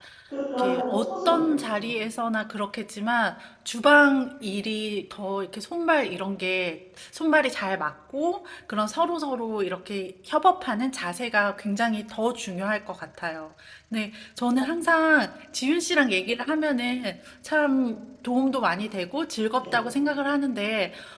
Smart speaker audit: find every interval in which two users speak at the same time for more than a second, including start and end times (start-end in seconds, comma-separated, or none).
0.6-1.8